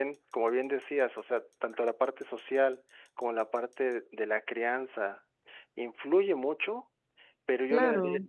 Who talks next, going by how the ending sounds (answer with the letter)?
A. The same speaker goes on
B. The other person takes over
A